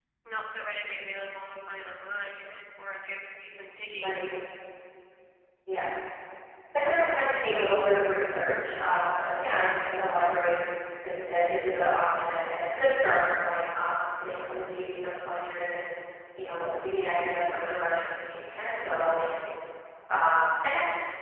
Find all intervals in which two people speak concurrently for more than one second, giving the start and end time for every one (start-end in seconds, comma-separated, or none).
none